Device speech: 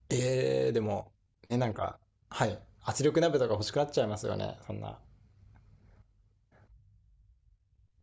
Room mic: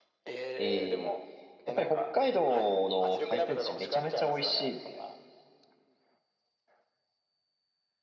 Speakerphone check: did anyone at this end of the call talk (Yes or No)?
Yes